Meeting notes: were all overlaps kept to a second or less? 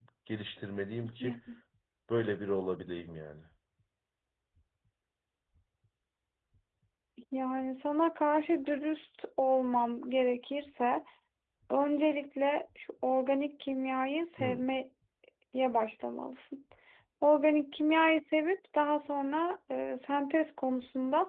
Yes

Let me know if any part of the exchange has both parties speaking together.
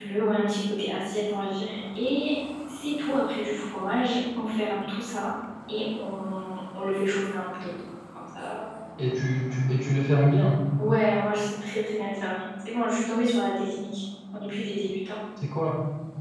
No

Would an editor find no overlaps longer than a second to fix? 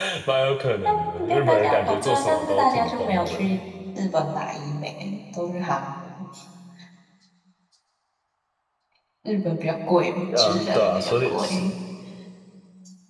No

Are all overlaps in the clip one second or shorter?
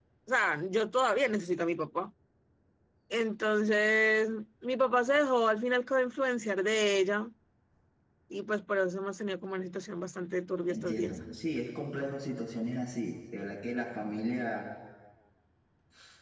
Yes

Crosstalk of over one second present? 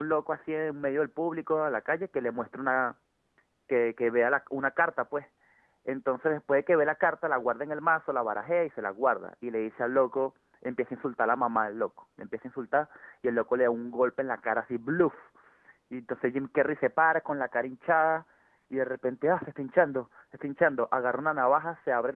No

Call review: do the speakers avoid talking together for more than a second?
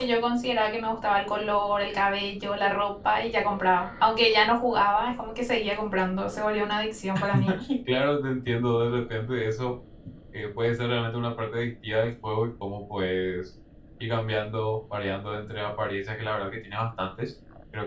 Yes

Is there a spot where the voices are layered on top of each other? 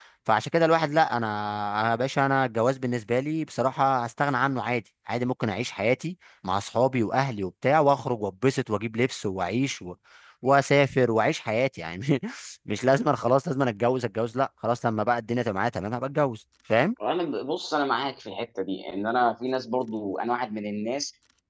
No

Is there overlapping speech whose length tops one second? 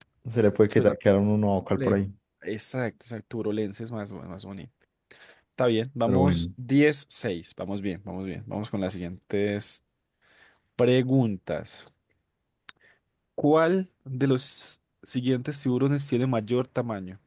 No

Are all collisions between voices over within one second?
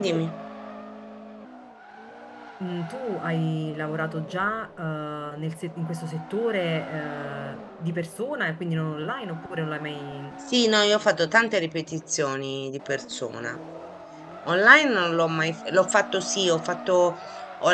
Yes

